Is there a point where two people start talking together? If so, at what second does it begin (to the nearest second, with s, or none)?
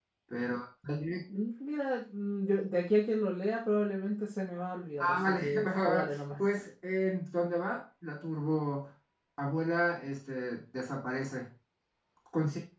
5 s